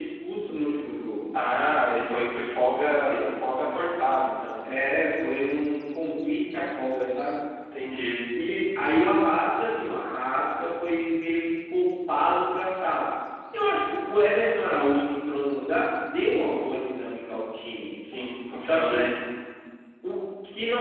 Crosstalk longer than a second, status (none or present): none